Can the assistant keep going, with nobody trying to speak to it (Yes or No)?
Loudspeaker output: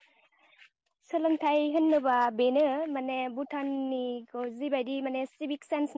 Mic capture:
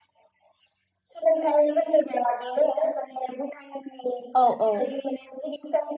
No